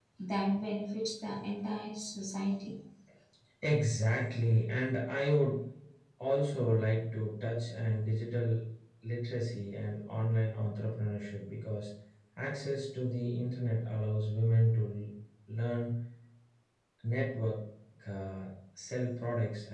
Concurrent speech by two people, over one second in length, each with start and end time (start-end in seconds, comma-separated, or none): none